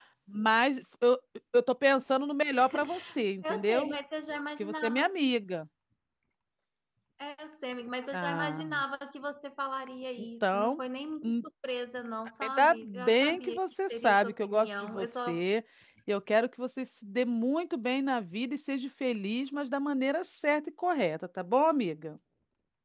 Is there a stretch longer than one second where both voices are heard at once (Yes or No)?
Yes